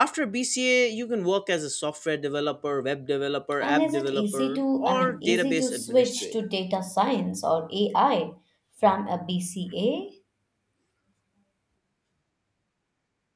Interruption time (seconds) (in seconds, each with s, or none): 3.6 s